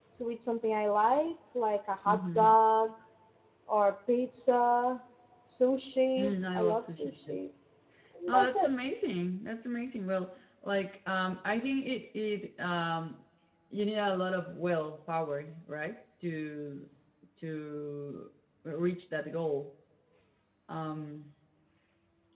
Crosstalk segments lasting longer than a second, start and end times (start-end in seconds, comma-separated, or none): 6.2-7.4